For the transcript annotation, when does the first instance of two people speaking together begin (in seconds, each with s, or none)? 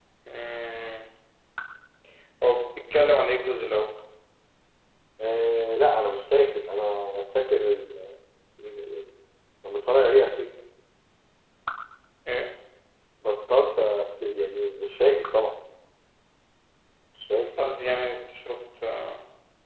none